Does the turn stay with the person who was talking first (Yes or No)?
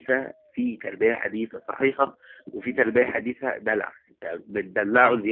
Yes